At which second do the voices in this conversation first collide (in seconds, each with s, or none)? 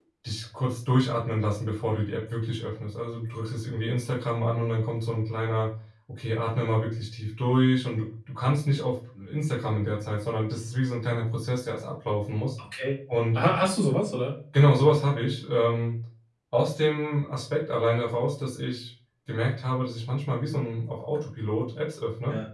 none